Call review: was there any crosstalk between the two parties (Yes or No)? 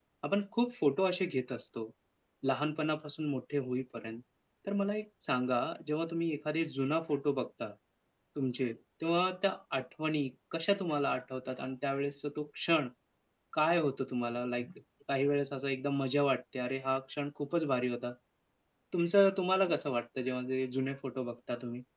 No